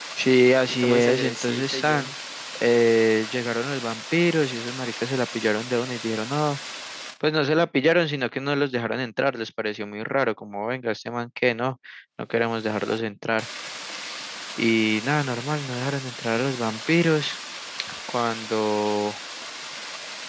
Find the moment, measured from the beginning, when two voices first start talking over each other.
0.7 s

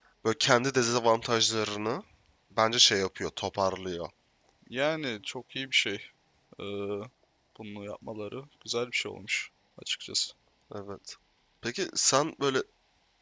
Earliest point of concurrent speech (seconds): none

